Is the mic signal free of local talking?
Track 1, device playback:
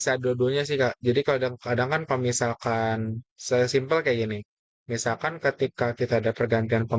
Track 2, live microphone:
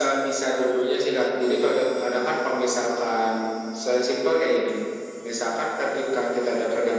Yes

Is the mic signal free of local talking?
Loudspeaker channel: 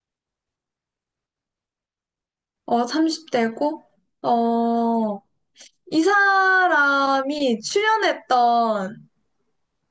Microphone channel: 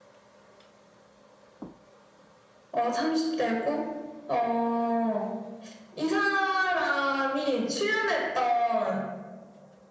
Yes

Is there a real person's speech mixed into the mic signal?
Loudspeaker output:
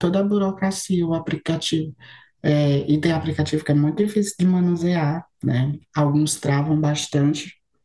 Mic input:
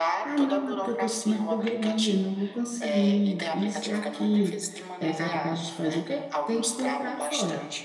Yes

